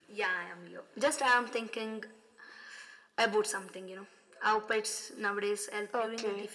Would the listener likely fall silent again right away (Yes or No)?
No